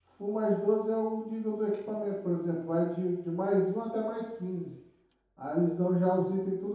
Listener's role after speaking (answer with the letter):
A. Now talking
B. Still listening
B